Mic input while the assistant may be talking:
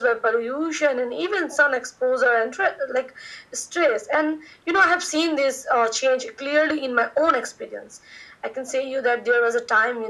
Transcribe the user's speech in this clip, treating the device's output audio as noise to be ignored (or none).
none